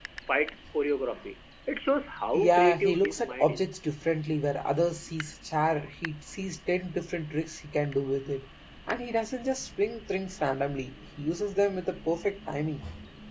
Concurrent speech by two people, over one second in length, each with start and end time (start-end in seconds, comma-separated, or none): 2.3-3.7